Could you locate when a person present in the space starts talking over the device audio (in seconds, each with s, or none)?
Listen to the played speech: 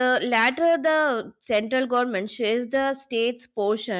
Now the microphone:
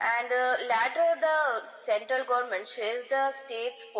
none